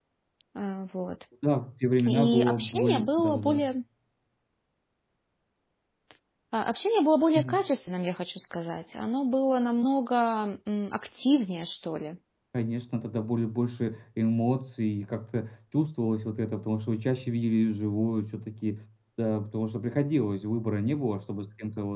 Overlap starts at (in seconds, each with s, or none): 2.0 s